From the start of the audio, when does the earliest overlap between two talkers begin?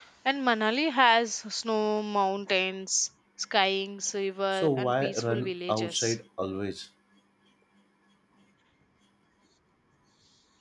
4.5 s

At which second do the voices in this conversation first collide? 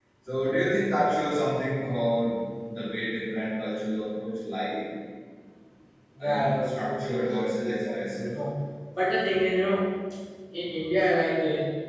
6.2 s

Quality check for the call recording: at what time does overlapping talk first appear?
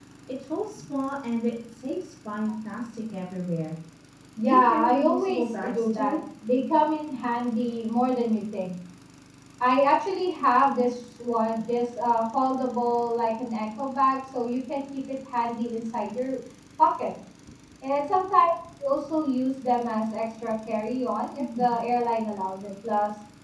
4.4 s

